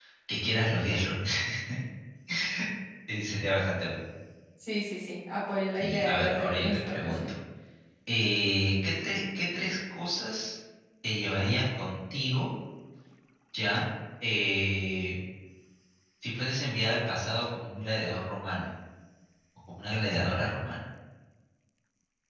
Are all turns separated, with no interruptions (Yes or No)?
No